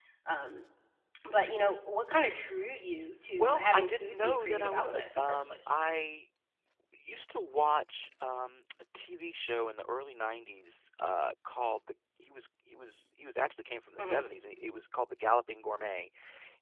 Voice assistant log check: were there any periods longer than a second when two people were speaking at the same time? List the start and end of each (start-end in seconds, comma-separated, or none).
3.4-5.7